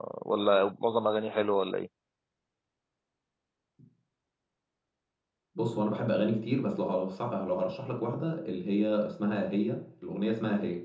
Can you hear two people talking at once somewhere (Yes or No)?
No